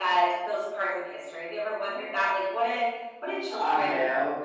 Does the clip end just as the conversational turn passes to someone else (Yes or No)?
No